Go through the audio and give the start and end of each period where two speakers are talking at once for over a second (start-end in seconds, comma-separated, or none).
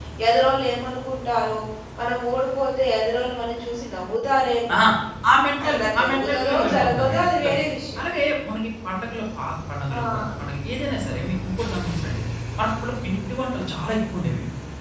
5.7-7.6